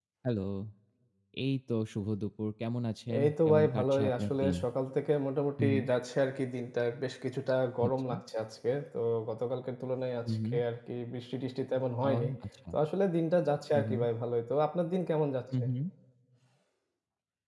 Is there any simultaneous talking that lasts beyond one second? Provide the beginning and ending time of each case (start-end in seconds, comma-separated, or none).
3.2-4.5